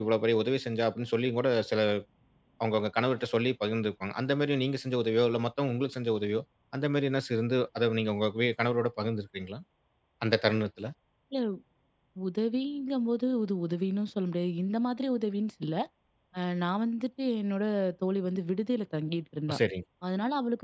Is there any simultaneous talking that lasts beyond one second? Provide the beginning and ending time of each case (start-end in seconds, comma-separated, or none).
none